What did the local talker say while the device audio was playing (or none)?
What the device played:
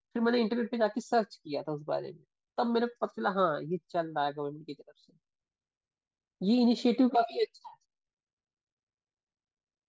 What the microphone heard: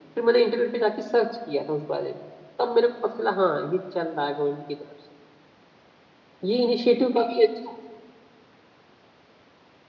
none